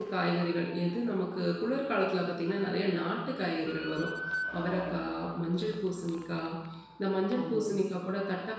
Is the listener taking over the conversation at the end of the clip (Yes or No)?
No